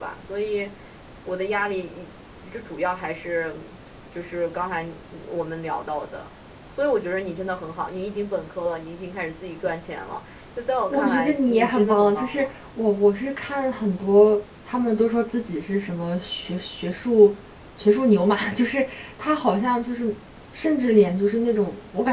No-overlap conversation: No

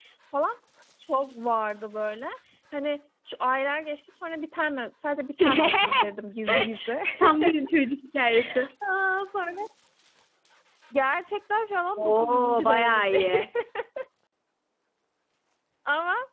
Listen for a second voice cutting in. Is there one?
Yes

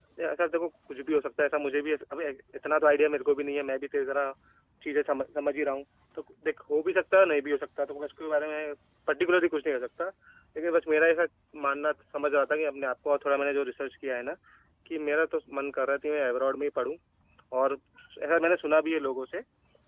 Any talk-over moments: No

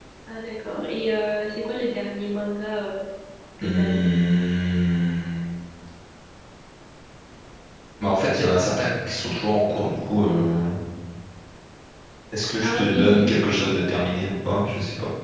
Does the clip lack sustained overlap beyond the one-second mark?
No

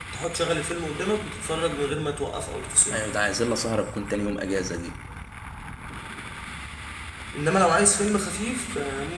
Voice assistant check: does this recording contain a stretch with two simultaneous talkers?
No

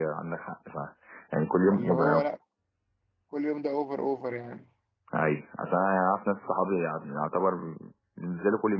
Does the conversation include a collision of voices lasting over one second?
No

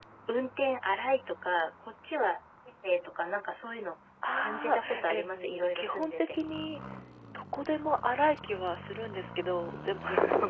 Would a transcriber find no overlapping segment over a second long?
No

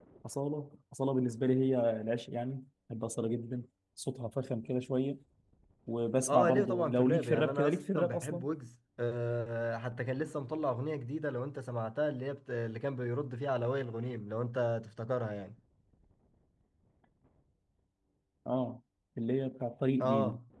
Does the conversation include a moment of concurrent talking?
Yes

